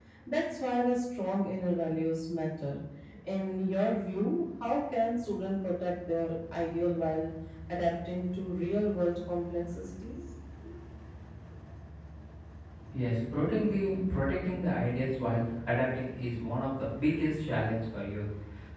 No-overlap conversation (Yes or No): Yes